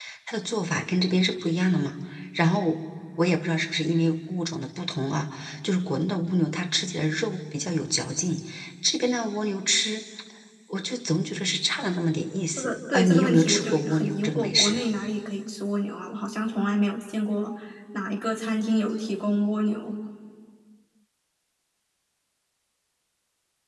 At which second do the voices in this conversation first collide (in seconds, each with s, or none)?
12.6 s